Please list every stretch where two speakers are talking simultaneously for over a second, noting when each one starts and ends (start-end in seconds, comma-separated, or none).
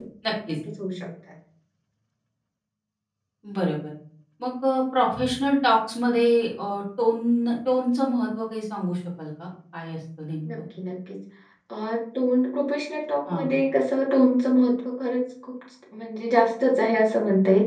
none